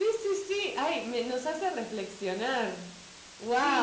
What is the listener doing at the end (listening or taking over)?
taking over